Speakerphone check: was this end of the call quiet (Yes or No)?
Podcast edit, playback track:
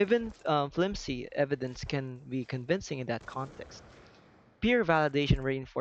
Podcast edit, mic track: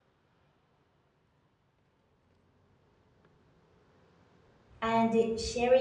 No